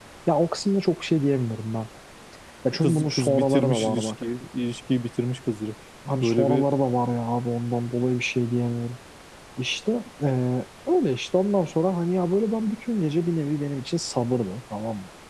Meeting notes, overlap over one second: present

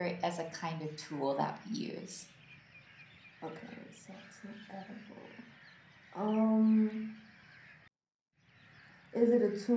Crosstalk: none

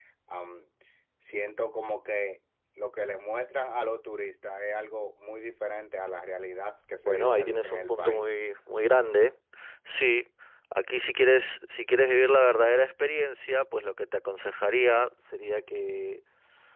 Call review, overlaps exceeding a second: present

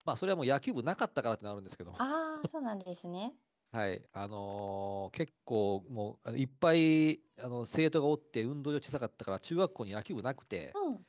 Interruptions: none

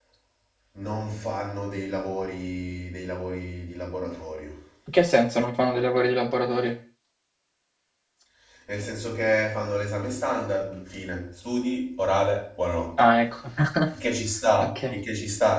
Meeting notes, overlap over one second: none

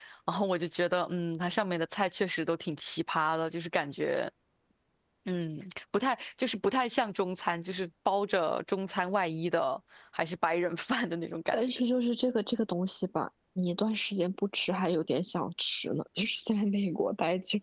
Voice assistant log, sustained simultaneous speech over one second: none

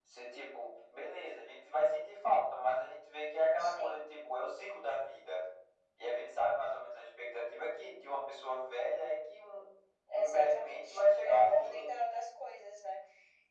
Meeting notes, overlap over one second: present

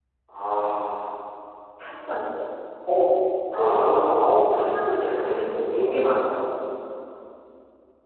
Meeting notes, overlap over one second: present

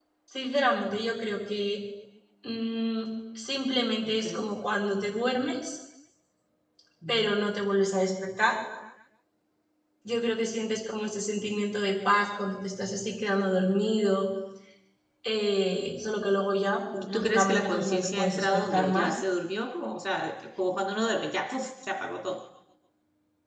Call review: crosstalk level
present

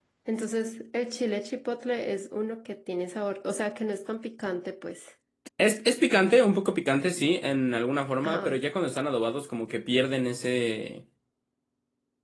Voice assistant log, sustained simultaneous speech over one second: none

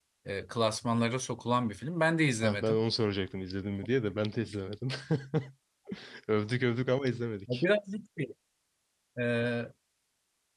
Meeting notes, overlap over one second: none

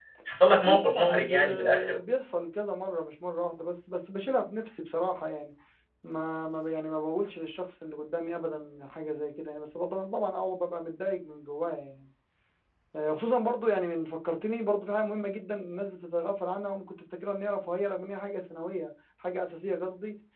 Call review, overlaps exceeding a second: present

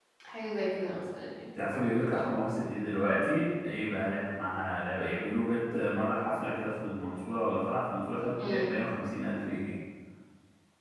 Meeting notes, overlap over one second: none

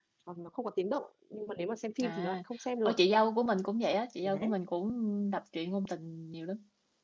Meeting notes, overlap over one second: none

